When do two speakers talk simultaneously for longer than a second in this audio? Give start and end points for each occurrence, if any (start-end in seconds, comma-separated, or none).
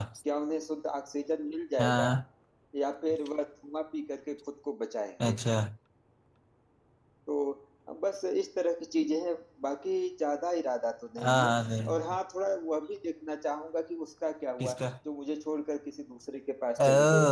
none